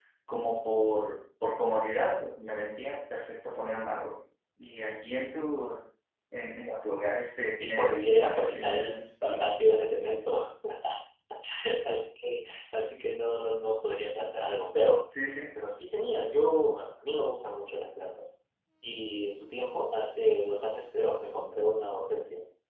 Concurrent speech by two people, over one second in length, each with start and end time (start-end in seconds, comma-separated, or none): 7.6-9.5